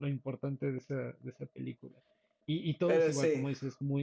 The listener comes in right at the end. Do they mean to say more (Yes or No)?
No